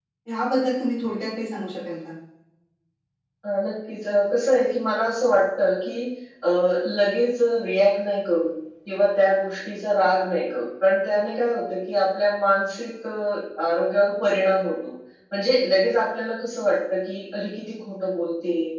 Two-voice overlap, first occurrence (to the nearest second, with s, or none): none